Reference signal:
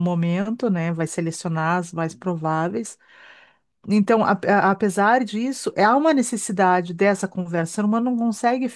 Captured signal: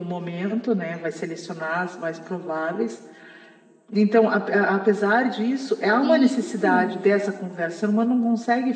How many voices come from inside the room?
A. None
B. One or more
B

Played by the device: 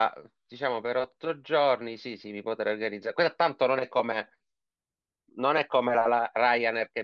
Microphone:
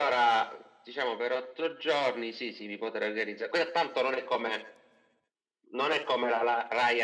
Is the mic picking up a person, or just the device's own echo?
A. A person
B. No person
B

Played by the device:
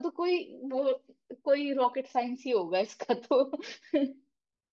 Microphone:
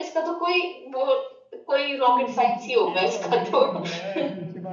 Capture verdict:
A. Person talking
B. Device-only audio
A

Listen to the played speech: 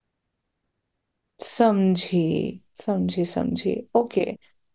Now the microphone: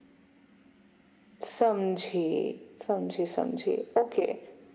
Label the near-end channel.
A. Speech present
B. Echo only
B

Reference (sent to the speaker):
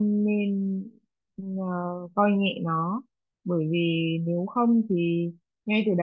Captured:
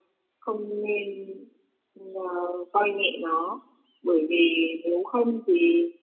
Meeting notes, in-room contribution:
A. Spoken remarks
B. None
B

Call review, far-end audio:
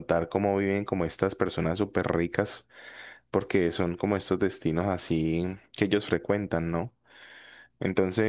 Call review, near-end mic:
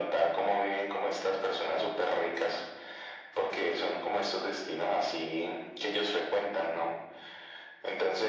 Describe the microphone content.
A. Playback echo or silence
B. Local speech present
A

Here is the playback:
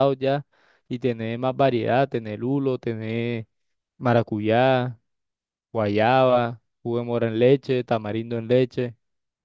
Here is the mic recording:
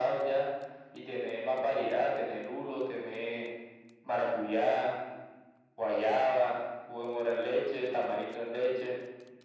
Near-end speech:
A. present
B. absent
B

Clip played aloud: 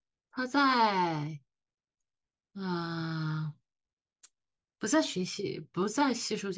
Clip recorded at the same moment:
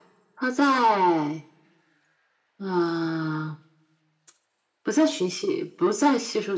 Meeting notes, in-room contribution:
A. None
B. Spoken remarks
A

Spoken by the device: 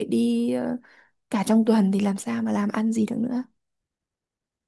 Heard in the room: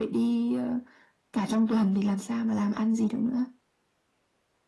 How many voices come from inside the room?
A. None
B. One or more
A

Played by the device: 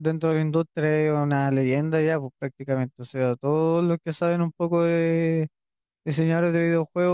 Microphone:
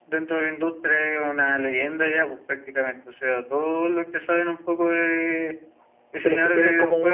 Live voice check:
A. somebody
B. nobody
A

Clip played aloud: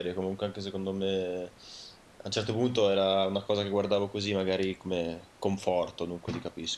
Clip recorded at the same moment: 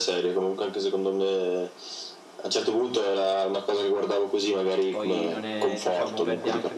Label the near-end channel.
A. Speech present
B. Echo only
A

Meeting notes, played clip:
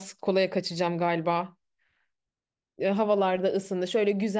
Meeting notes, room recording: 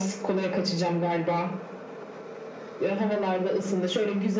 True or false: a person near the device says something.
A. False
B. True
A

